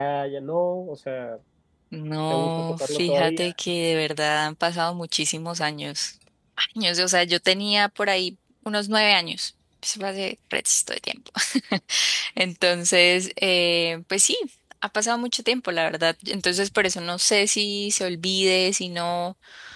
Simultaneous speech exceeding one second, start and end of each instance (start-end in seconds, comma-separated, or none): 2.3-3.5